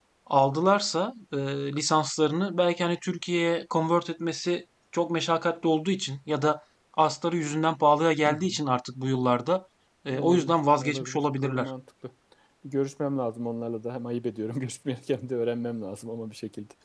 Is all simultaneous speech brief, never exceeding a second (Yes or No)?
No